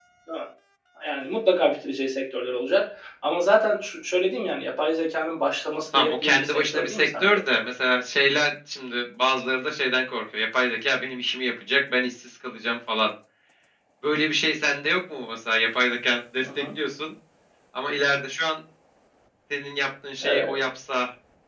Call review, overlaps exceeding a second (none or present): present